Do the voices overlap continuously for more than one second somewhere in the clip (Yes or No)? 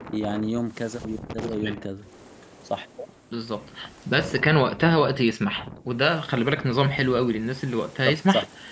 No